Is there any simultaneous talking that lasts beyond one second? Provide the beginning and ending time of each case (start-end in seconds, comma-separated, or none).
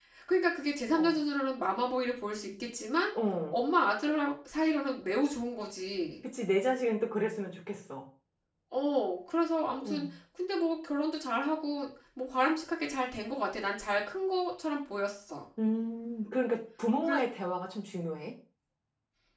none